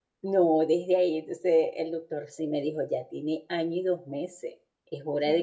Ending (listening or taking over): listening